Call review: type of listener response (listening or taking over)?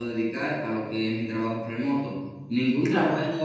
listening